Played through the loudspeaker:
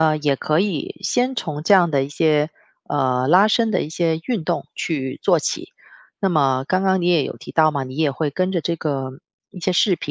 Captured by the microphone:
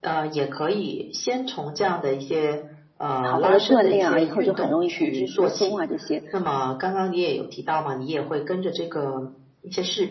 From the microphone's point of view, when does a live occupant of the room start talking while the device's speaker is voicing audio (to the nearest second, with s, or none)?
3 s